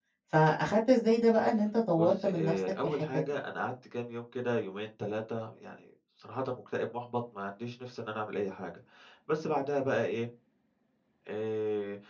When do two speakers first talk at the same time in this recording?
2.0 s

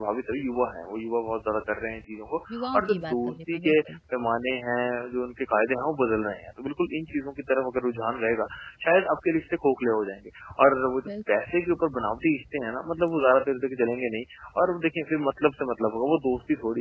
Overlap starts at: 2.5 s

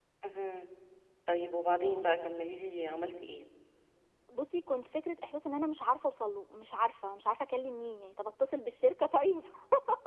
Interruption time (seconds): none

